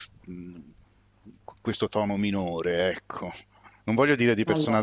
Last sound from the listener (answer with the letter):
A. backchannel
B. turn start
A